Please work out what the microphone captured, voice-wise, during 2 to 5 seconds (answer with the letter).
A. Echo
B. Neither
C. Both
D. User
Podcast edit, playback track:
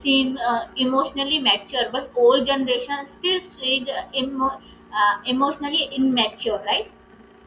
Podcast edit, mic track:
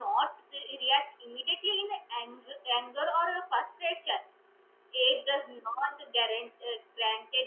D